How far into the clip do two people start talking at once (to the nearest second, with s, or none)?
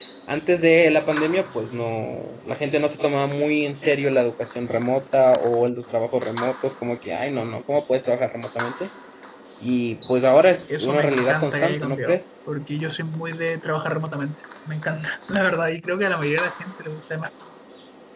11 s